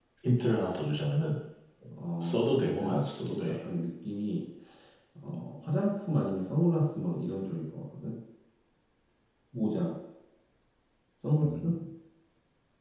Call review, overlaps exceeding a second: present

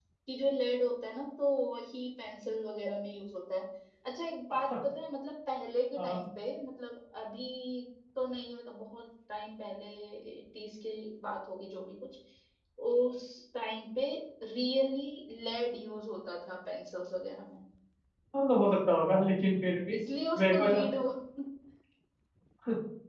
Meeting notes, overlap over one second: none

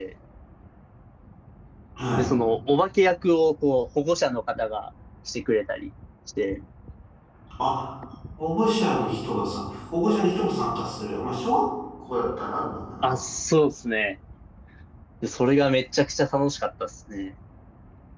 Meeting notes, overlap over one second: none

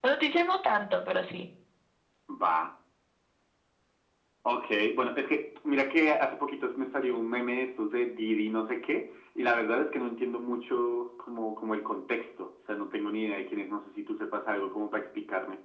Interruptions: none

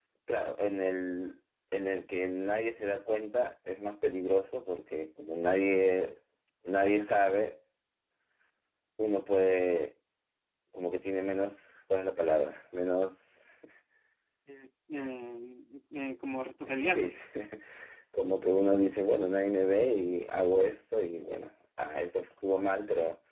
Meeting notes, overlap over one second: none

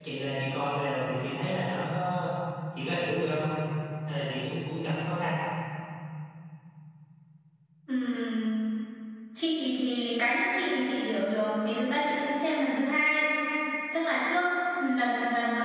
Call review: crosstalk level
none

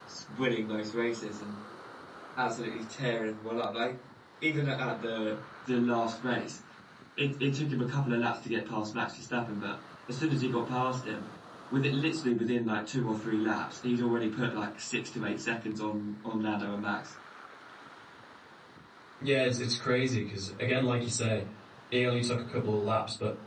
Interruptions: none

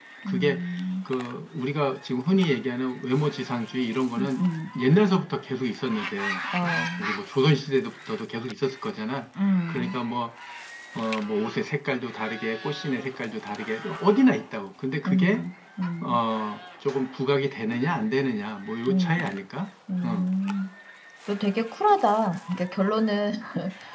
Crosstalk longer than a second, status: none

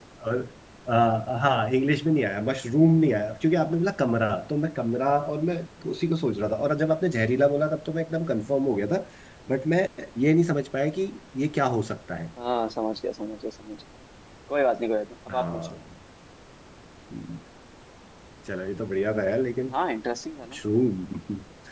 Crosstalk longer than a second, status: none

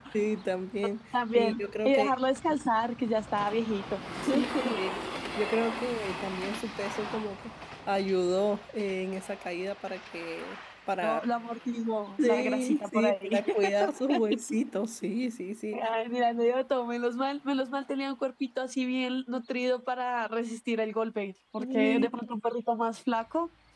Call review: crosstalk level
present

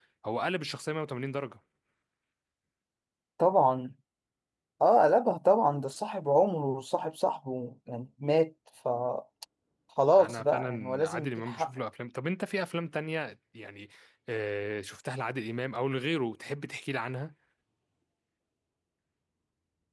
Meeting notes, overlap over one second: present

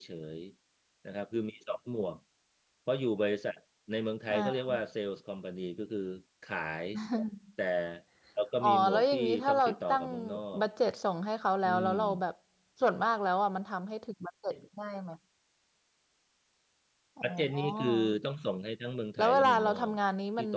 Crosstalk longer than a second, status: present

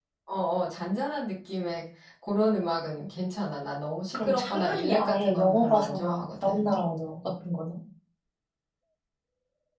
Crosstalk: present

